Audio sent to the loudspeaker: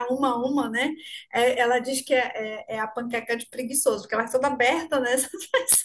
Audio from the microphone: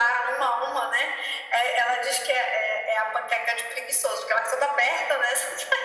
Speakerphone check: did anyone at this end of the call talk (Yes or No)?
No